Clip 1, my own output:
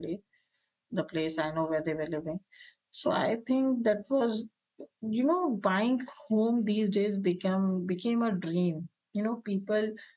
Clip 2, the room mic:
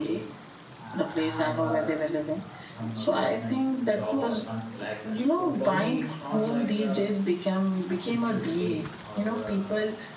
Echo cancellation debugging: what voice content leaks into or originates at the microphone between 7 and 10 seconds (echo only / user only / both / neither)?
both